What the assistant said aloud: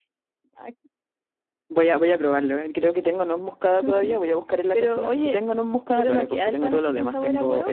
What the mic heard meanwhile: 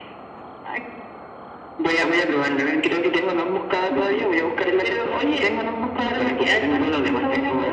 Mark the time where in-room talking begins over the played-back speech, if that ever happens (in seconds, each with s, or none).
none